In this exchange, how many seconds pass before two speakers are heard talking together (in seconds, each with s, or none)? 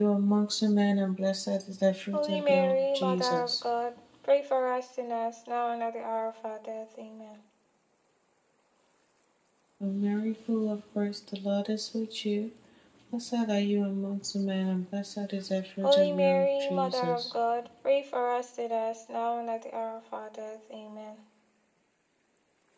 2.1 s